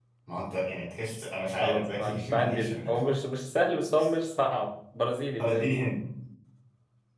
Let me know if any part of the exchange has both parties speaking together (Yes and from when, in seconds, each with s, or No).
Yes, from 1.6 s